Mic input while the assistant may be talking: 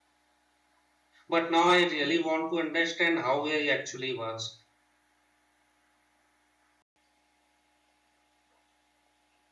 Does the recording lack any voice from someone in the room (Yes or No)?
No